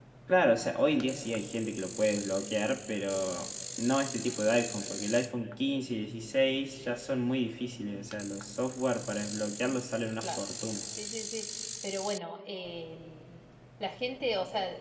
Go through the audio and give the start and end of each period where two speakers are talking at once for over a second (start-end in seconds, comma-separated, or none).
none